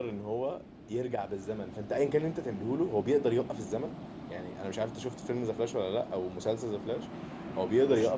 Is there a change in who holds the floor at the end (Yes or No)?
No